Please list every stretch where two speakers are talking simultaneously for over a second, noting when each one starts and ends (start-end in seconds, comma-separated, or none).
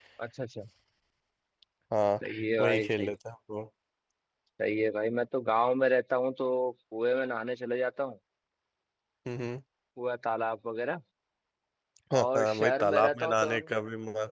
12.2-13.6